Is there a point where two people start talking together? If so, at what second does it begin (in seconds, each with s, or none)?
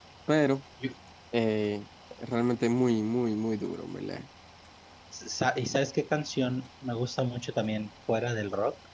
none